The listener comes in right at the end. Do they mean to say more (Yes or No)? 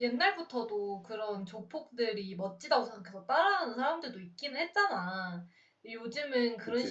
No